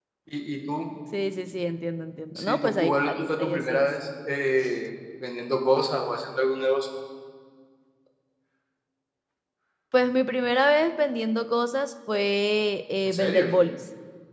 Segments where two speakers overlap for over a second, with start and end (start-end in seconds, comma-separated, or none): 2.4-3.9